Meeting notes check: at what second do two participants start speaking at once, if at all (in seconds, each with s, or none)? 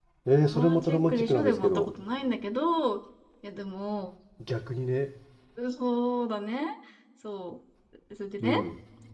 0.5 s